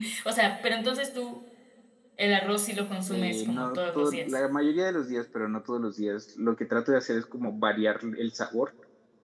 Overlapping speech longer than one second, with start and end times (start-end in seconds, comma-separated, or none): 3.1-4.4